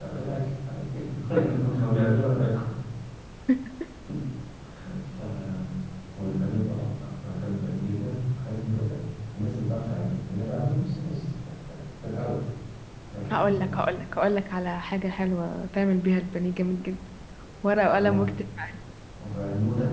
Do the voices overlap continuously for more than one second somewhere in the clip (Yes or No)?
No